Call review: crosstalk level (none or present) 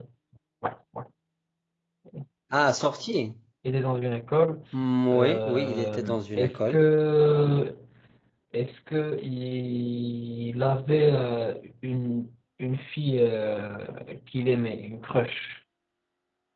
present